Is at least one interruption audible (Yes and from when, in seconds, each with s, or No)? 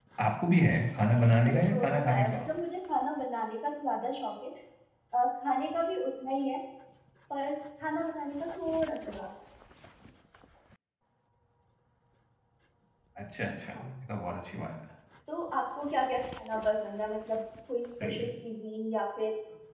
Yes, from 1.1 s